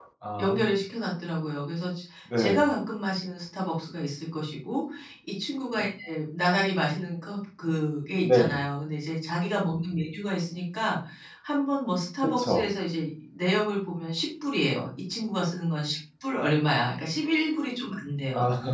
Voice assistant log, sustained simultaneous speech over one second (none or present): none